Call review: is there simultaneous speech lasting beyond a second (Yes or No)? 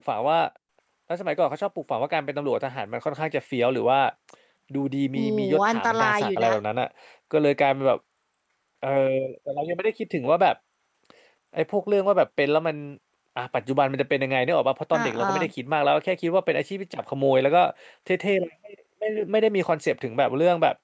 Yes